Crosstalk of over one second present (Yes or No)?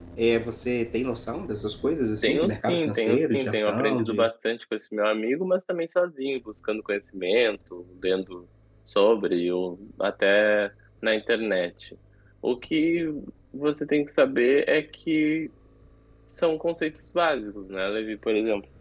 Yes